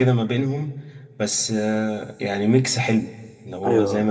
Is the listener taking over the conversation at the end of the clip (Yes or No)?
Yes